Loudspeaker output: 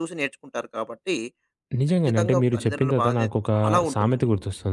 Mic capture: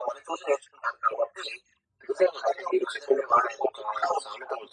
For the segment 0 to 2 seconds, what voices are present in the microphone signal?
echo only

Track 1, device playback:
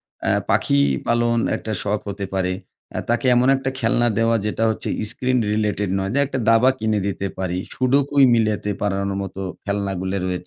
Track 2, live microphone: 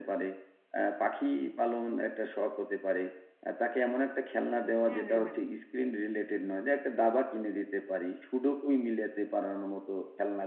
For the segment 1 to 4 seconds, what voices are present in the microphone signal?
echo only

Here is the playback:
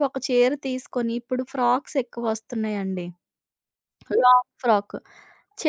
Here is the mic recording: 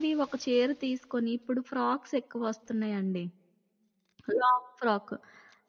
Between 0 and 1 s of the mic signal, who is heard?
echo only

